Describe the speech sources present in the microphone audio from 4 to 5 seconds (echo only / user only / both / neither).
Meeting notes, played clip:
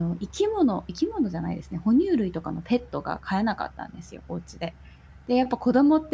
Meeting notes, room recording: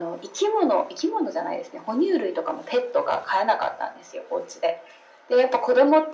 echo only